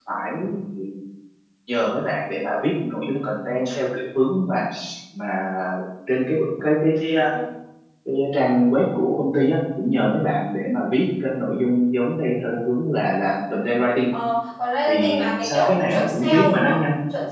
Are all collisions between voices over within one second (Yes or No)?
No